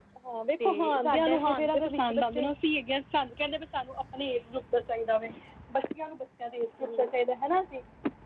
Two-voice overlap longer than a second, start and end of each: 0.6-2.5

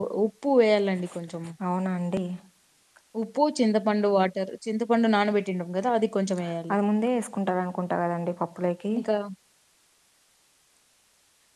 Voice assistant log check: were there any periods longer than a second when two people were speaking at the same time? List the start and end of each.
none

